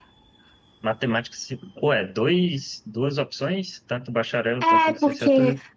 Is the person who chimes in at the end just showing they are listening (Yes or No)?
No